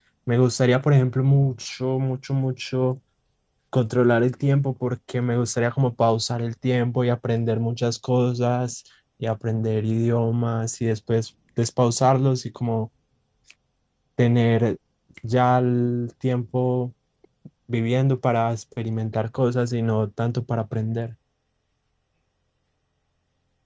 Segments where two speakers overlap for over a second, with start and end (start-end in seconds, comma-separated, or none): none